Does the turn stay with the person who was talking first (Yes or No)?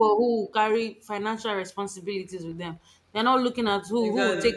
Yes